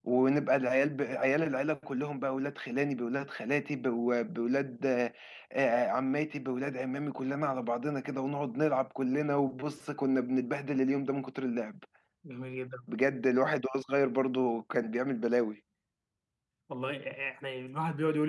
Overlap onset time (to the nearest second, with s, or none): none